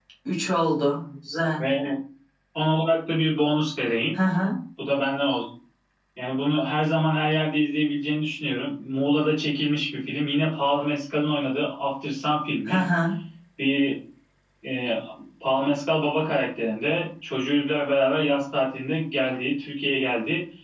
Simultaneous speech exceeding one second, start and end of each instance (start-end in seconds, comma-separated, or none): none